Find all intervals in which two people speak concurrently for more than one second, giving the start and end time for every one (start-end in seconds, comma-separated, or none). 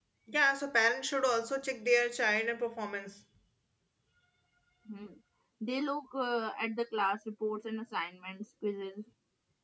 none